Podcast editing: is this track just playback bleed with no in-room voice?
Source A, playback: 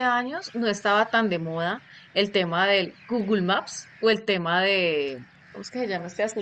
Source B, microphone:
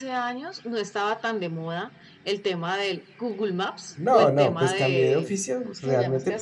No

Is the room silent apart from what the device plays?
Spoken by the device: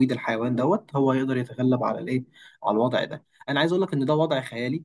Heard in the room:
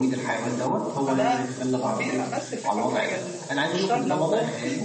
No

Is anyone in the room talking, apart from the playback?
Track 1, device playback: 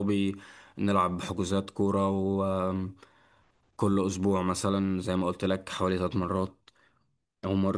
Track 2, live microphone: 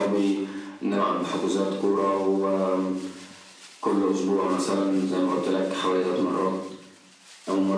No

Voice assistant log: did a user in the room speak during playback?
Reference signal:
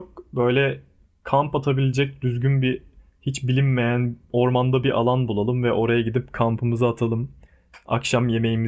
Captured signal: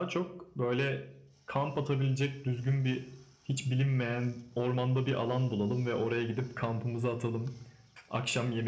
No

